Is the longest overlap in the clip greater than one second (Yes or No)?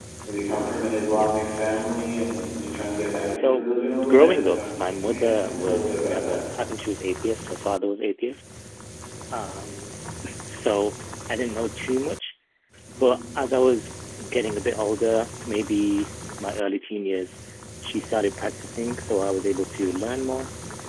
Yes